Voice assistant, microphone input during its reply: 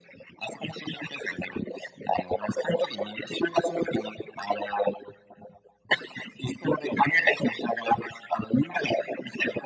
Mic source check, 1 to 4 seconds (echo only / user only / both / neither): echo only